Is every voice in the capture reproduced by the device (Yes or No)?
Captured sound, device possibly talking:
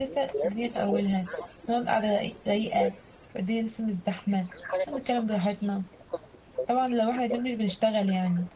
No